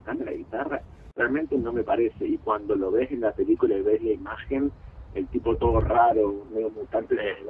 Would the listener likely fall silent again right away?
Yes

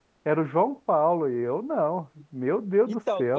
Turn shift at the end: Yes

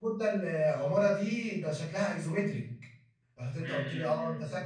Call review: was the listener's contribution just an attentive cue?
No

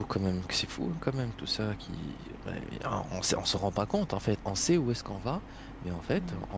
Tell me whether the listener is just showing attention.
Yes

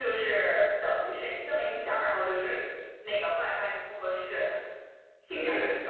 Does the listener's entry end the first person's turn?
Yes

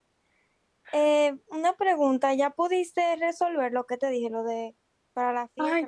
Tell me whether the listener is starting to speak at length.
Yes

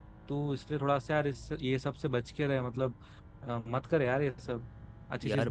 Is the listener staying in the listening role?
No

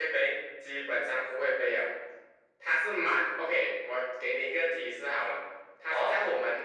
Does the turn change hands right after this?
No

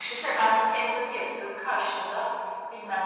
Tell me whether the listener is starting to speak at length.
No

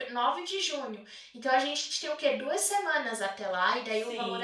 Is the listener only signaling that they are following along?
No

